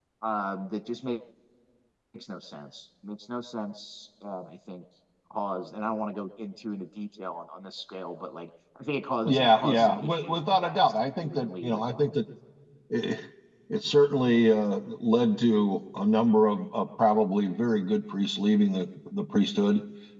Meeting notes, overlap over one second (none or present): present